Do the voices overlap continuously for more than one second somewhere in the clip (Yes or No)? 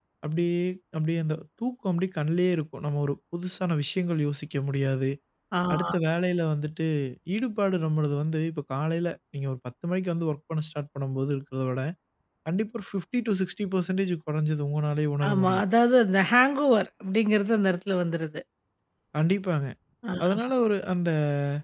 No